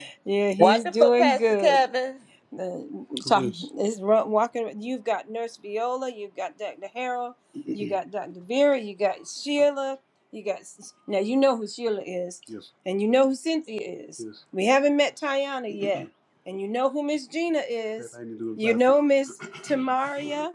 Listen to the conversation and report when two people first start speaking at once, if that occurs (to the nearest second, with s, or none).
1 s